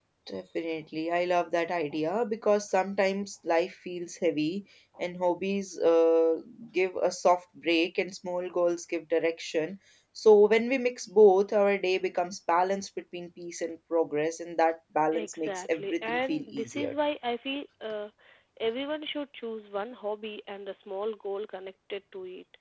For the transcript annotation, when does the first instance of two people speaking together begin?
15.1 s

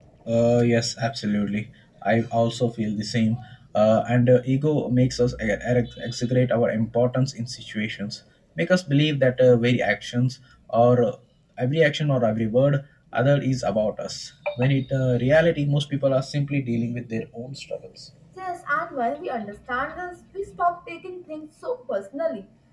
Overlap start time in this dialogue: none

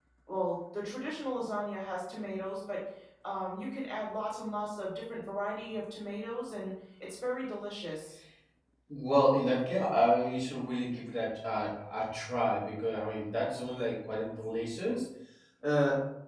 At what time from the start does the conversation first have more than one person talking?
none

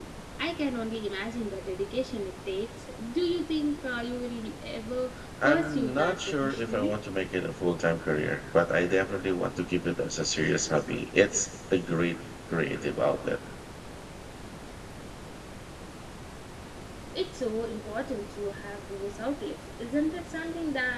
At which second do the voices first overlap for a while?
5.4 s

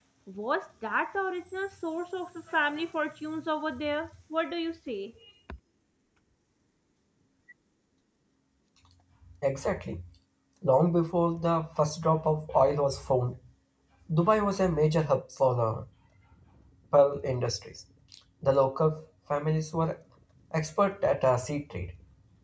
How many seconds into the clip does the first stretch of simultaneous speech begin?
none

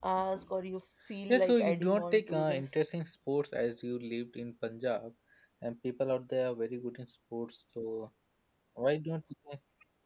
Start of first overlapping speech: 1.3 s

